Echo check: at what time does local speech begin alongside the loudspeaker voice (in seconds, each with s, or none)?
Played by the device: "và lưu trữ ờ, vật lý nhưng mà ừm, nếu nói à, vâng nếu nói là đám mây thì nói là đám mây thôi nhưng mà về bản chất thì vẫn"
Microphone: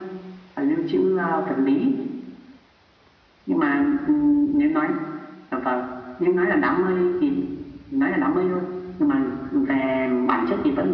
none